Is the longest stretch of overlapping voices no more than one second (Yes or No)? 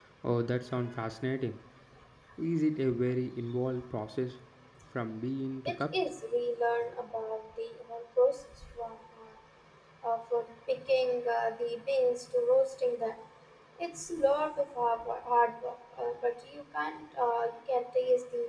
Yes